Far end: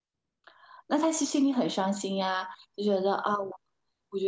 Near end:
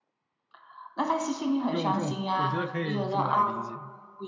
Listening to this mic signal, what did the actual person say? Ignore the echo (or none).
用这种，我觉得可以这么来理解，